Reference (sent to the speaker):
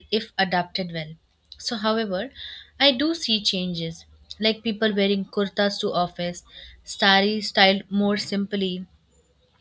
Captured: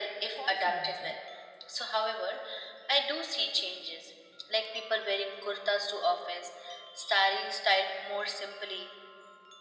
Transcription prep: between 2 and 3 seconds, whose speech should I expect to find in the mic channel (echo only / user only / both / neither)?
echo only